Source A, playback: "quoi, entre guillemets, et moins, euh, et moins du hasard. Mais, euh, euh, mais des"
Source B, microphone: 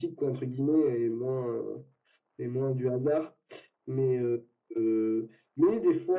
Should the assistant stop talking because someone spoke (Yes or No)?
No